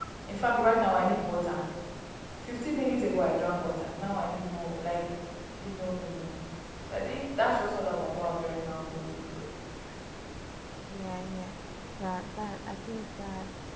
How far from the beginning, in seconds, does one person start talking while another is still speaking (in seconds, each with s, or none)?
none